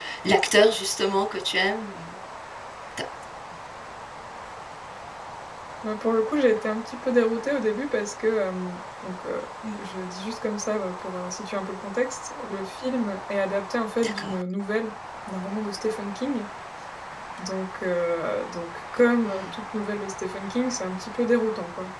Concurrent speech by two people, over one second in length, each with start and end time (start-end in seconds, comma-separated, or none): none